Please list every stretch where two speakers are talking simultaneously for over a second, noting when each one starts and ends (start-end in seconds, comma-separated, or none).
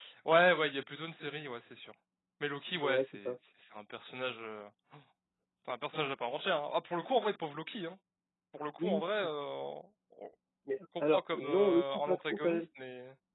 11.1-12.7